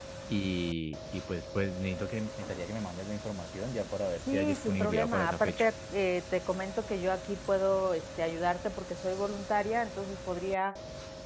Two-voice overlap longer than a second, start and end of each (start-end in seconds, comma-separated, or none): 4.3-5.7